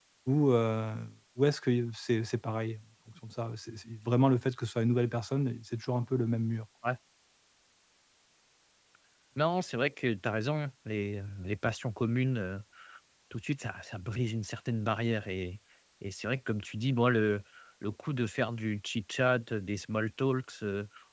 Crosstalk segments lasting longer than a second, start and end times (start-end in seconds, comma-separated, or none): none